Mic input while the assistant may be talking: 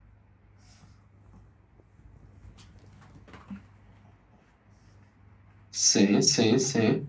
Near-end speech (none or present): present